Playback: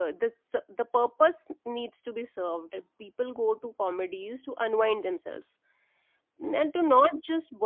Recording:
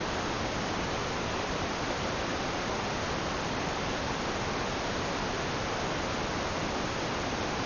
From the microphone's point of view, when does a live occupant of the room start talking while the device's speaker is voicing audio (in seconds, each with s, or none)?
none